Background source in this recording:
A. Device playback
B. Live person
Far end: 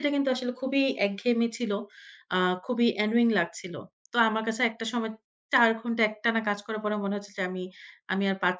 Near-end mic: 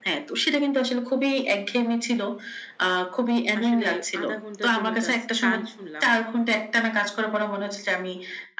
B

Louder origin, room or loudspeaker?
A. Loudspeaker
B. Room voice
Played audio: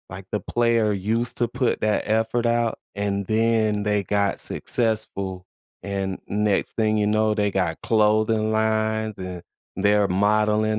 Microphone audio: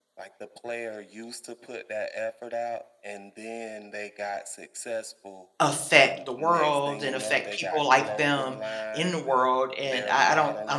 B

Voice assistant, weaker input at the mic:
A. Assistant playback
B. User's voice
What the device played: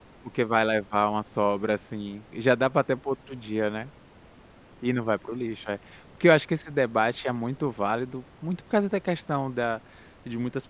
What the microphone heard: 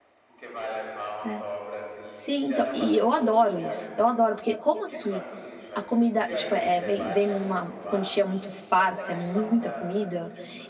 A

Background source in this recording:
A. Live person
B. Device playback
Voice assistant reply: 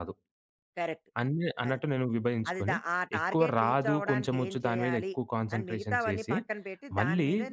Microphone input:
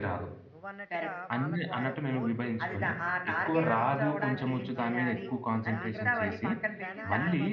A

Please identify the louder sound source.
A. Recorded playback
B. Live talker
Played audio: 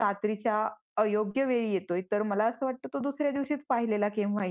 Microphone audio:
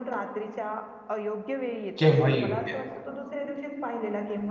B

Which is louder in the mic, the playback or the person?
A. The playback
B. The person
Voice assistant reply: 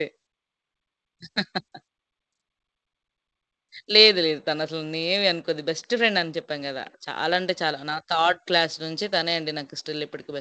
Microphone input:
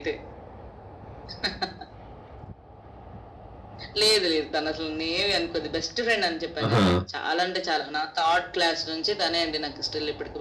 B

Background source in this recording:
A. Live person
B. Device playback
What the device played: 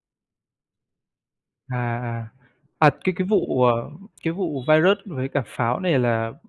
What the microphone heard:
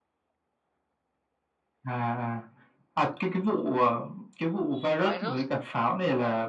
A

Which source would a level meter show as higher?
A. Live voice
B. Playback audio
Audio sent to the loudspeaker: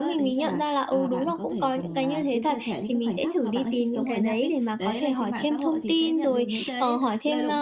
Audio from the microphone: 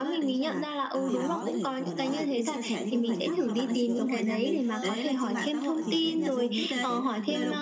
B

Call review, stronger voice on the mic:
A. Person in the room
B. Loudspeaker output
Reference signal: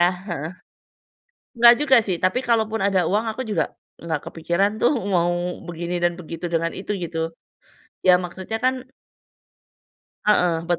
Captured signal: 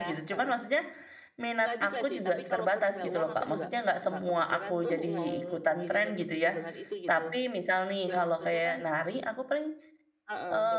A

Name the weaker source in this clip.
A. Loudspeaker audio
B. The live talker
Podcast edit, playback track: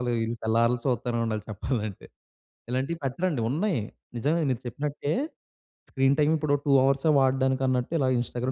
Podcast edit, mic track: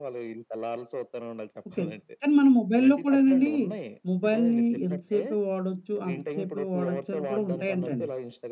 A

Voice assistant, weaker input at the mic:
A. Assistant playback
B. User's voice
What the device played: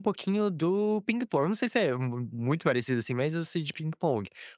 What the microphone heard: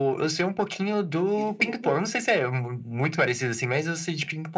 B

